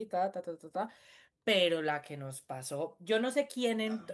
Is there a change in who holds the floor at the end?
Yes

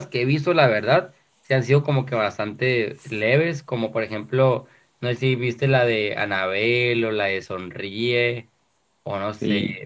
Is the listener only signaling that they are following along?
No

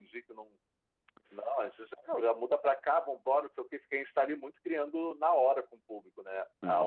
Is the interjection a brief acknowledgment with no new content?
No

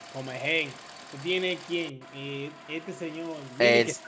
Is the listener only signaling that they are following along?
No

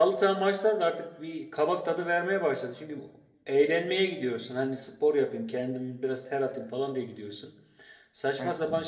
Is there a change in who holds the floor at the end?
No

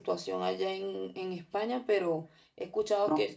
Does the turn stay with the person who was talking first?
Yes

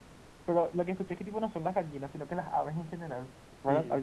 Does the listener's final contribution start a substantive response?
Yes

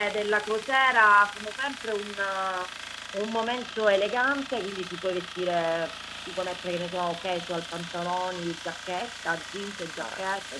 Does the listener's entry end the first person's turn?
Yes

